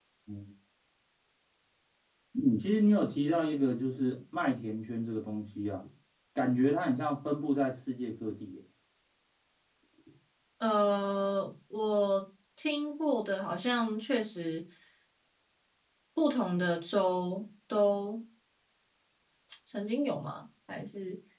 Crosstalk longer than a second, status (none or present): none